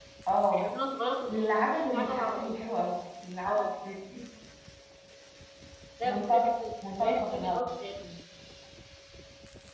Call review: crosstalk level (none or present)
present